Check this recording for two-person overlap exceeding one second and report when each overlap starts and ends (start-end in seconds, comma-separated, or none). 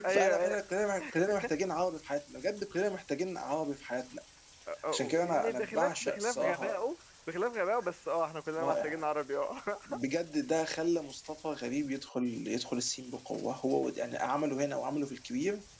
4.9-6.8